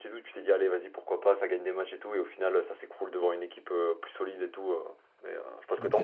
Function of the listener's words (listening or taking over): taking over